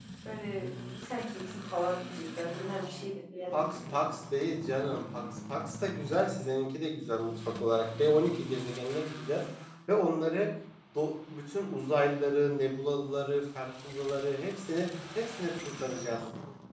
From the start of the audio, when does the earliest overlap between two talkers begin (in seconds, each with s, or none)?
none